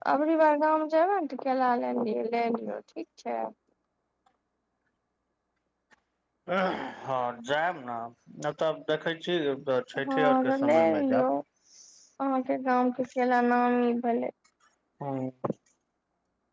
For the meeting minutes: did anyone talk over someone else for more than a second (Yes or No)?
Yes